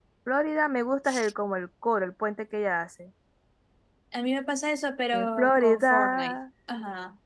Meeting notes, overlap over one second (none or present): present